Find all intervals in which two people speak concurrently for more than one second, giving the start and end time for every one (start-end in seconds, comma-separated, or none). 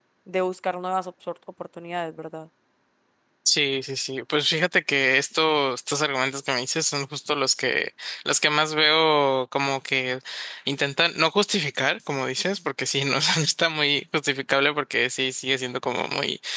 none